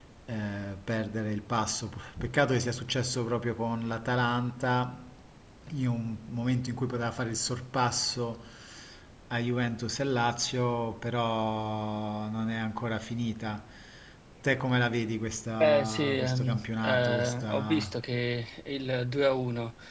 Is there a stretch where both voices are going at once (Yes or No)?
Yes